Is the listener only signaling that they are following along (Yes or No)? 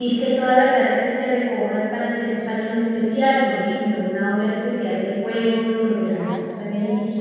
No